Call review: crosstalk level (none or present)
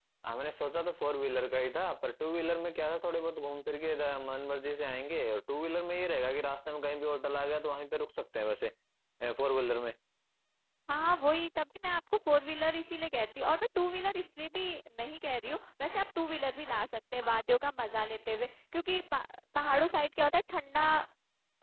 none